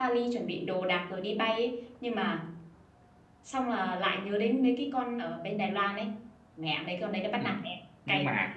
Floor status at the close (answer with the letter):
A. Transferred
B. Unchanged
A